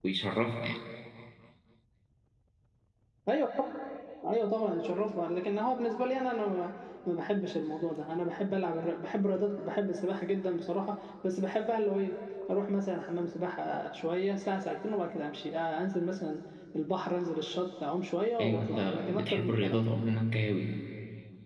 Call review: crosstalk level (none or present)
present